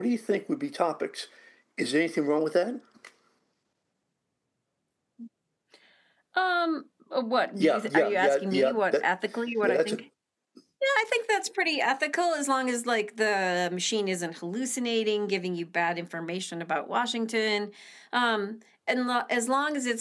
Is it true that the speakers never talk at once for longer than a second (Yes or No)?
No